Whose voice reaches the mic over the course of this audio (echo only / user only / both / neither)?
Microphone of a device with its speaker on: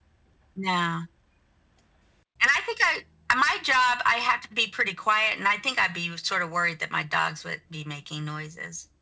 echo only